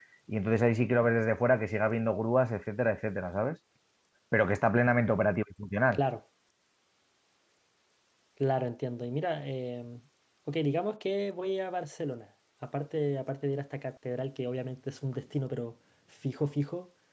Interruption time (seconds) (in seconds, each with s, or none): none